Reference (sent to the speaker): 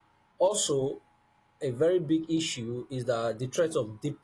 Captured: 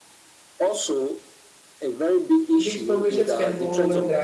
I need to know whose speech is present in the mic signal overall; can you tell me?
both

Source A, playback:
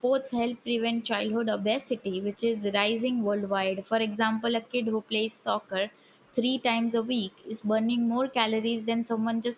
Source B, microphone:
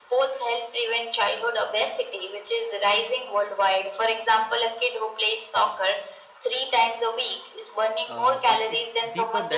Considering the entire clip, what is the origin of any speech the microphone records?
both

